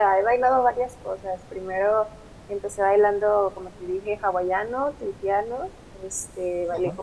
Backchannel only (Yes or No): Yes